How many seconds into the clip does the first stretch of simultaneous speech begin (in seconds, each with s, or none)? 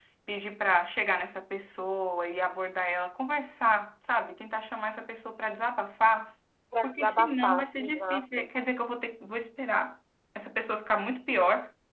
6.8 s